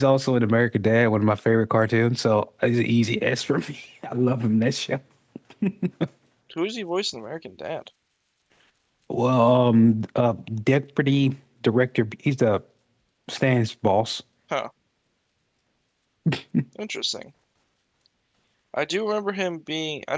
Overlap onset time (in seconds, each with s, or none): none